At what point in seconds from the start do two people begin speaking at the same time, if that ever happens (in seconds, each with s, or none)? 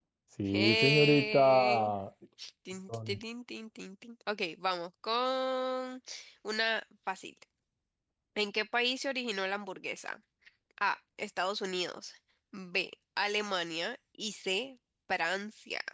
0.5 s